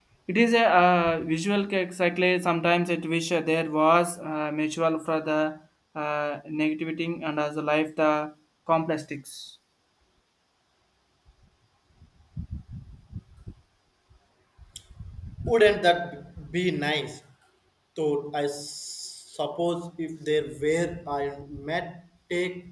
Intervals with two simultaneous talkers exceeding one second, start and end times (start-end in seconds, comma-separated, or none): none